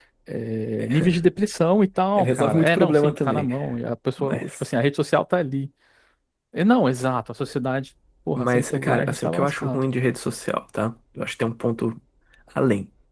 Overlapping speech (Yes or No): Yes